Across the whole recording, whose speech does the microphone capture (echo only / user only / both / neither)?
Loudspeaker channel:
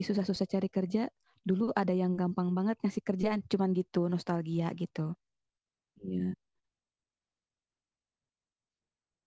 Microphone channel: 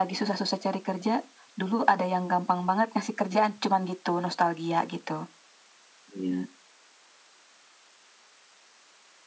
echo only